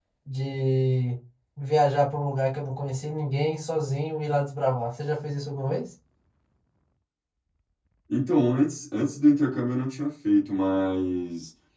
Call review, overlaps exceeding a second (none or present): none